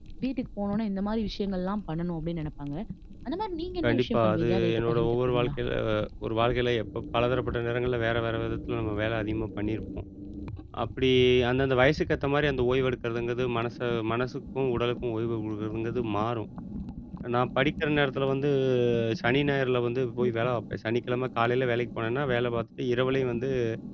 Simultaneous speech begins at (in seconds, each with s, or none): 3.9 s